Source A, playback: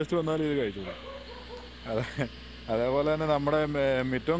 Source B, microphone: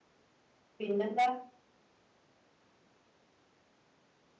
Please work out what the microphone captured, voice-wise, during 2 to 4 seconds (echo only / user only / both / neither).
neither